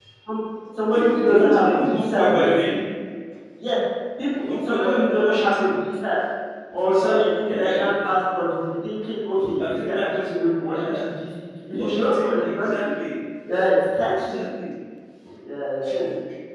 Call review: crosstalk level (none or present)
present